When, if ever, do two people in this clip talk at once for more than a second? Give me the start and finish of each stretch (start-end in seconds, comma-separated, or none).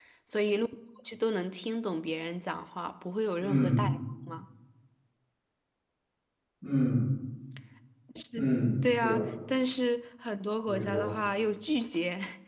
none